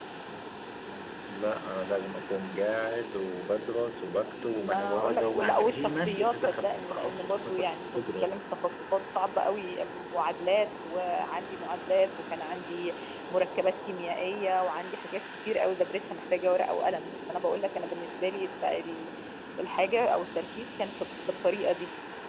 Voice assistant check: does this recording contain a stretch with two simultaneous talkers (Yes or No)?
Yes